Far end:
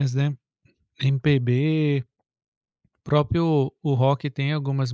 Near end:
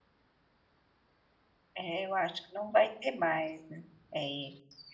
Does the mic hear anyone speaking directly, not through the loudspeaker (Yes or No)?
Yes